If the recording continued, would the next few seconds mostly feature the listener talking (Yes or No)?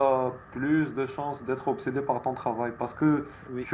No